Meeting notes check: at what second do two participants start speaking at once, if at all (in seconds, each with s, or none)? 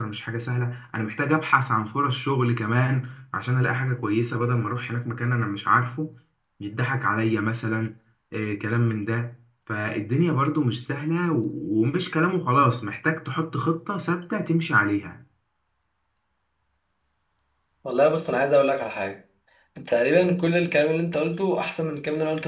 none